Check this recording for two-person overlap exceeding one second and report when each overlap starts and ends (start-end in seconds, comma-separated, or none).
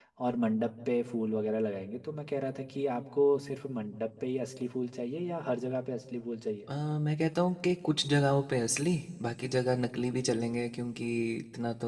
none